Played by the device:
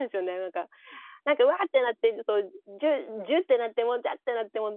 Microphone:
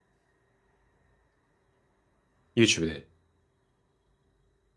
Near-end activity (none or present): present